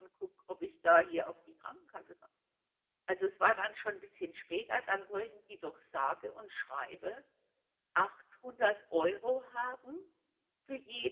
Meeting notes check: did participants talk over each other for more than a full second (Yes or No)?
No